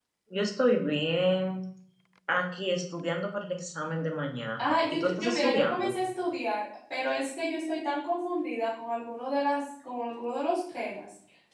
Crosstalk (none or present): present